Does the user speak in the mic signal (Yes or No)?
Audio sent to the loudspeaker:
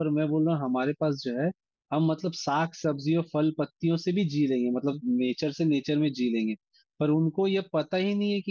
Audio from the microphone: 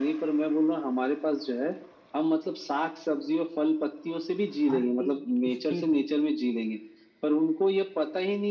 Yes